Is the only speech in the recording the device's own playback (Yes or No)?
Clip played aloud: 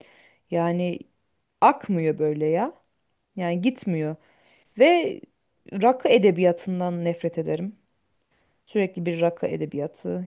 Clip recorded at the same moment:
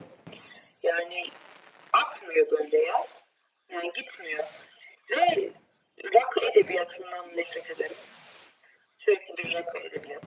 Yes